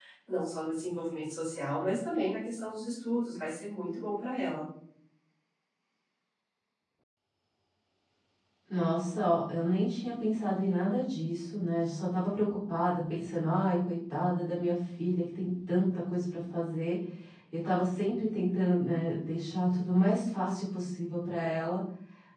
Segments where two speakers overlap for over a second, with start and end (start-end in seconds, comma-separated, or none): none